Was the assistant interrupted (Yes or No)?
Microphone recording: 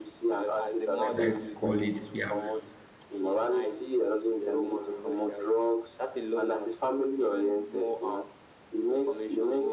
Yes